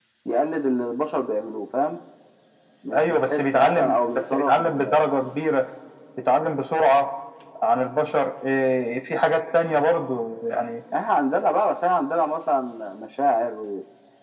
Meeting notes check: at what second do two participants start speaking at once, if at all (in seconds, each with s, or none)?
2.9 s